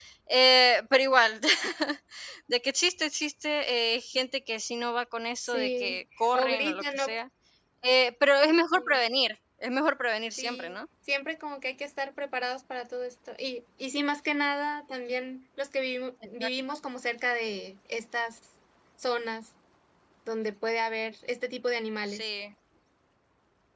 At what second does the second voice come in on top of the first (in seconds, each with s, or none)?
5.4 s